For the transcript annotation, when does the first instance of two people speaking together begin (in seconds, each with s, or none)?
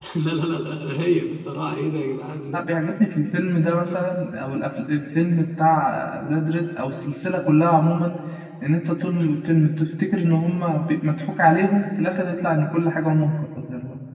none